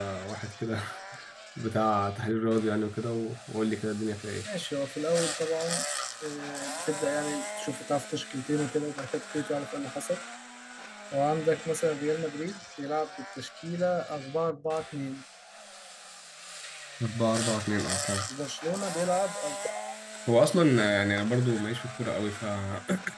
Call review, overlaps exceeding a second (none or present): none